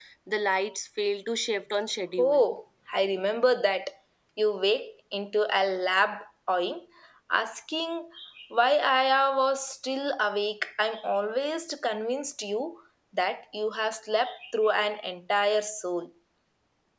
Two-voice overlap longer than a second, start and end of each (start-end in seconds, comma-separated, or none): none